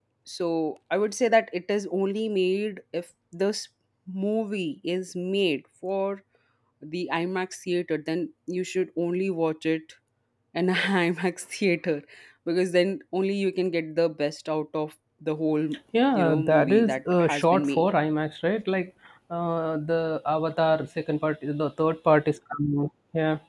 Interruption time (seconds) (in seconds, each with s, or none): 16.1 s